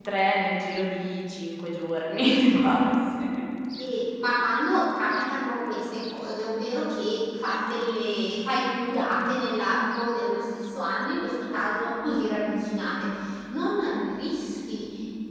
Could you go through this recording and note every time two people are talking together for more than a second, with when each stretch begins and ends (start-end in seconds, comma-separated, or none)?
none